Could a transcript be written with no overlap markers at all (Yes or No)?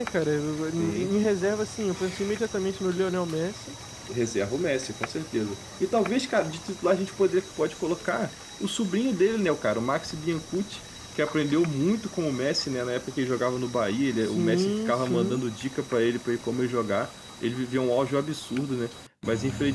No